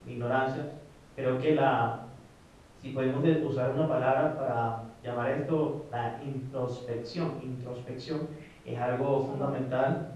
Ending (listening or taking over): listening